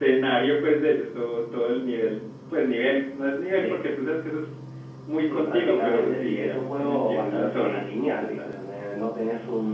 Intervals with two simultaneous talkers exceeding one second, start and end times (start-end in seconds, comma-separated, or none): 5.2-8.6